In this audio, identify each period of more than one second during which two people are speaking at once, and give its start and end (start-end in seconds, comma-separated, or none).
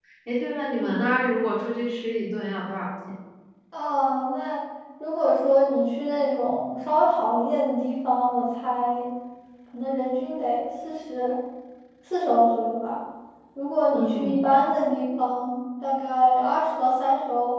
none